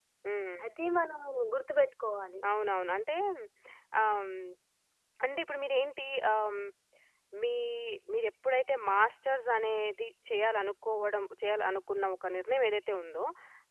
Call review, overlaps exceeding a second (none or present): none